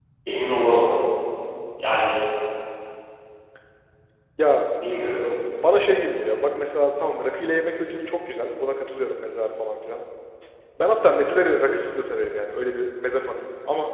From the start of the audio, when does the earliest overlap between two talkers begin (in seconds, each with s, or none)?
none